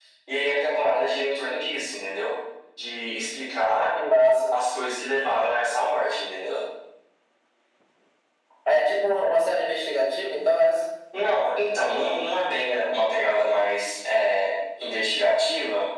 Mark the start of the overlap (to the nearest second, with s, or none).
none